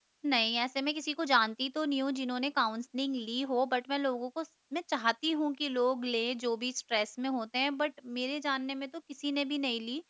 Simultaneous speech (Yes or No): No